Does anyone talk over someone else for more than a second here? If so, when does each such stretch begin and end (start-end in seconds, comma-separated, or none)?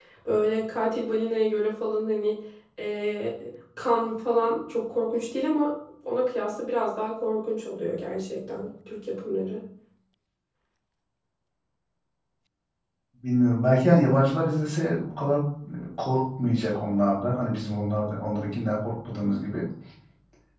none